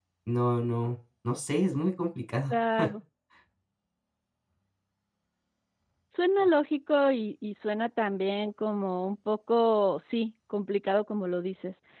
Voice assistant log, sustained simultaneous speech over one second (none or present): none